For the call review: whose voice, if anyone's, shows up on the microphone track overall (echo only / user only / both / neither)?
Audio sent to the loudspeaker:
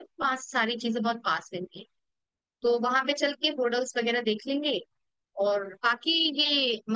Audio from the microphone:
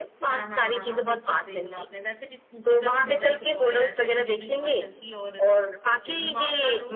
both